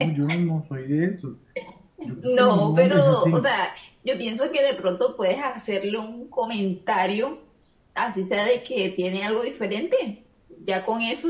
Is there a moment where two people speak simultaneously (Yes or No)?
Yes